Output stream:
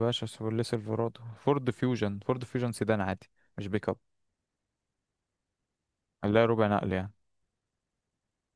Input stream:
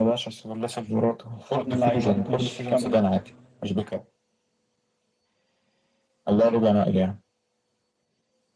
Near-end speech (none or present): present